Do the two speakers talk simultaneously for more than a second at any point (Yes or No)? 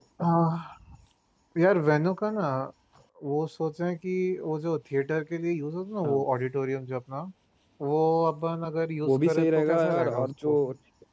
Yes